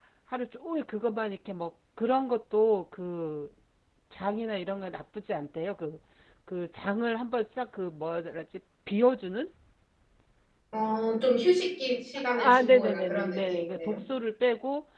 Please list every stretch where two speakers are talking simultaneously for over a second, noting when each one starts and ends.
12.3-13.9

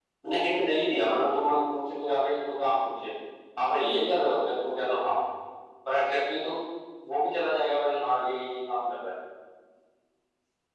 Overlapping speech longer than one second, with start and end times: none

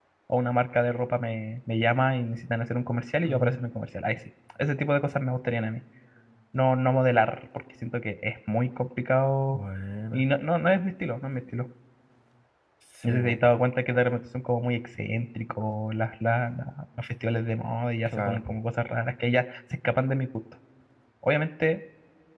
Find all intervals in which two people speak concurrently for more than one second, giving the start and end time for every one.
none

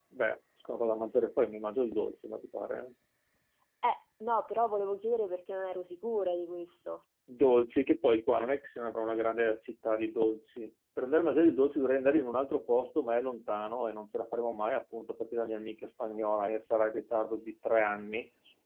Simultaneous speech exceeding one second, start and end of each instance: none

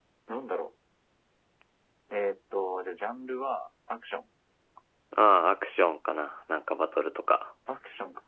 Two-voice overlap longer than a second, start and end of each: none

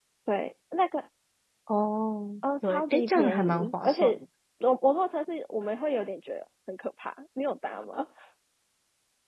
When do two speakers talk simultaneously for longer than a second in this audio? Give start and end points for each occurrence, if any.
2.6-4.2

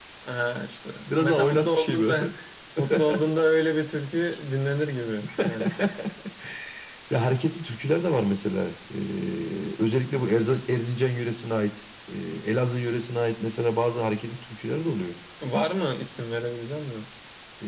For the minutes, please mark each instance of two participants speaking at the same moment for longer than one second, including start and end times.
1.1-2.3

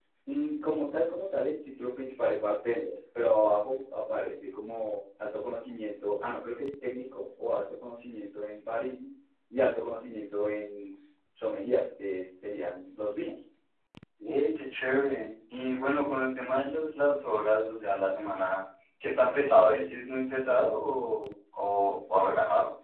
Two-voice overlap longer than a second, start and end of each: none

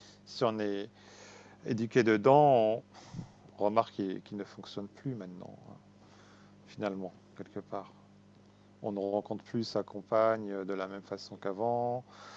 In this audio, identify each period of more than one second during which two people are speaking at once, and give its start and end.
none

